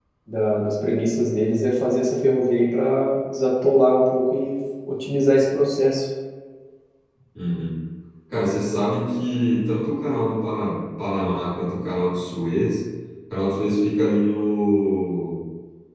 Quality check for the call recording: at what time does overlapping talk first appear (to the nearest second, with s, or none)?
none